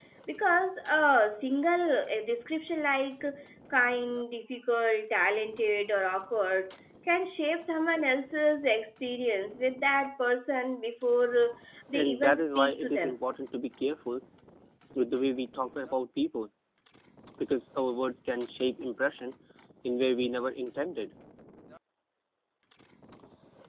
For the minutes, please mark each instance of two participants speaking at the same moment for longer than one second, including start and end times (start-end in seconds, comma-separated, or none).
11.9-13.2